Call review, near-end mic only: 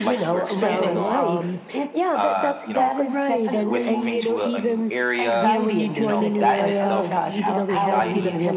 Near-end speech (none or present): present